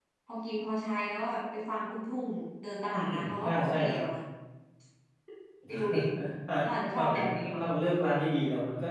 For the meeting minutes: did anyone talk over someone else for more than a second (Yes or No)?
Yes